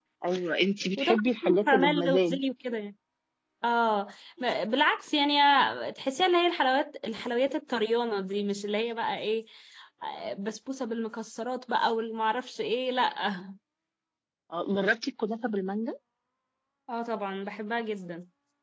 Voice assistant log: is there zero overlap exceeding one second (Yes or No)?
No